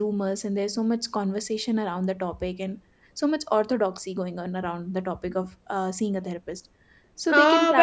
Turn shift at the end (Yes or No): Yes